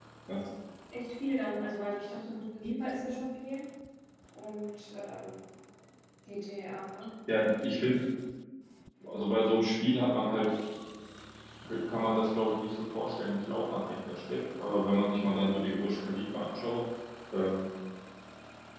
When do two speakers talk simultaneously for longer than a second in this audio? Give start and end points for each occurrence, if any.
none

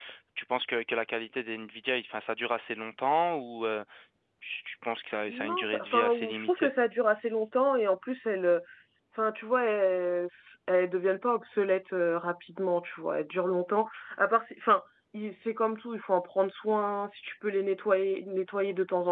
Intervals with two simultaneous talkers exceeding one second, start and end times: 5.3-6.7

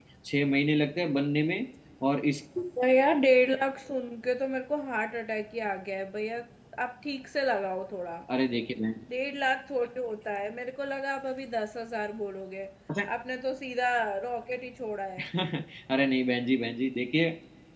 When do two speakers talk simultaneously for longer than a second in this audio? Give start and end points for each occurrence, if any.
none

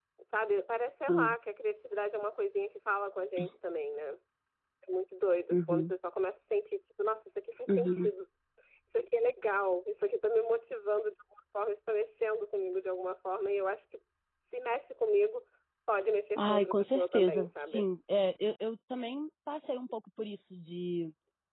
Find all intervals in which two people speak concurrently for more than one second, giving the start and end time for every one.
16.4-17.8

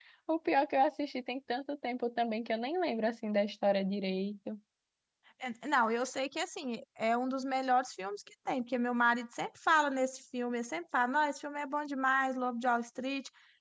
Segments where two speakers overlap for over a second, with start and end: none

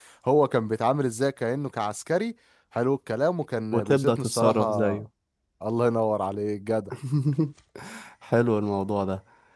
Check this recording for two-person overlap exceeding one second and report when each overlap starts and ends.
3.7-5.0

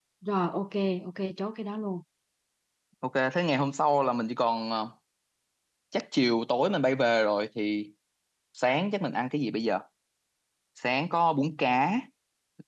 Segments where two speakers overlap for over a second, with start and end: none

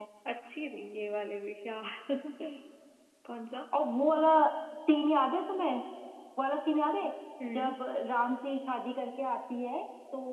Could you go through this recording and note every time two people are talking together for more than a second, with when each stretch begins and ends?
none

